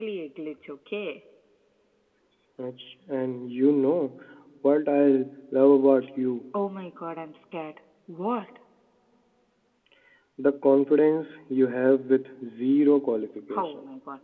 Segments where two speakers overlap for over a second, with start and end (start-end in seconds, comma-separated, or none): none